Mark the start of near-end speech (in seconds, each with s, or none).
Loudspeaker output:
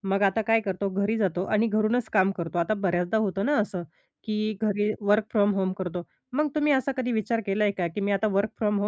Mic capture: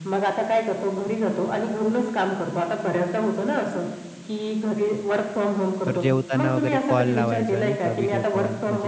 5.8 s